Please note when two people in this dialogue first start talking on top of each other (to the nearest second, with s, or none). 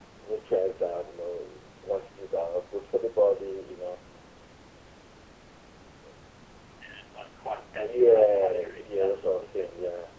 8 s